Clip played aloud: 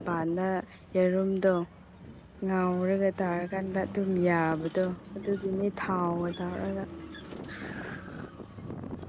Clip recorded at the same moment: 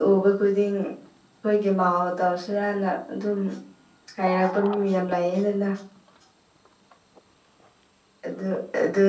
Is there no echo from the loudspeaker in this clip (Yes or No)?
Yes